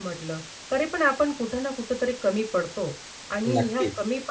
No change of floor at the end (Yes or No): Yes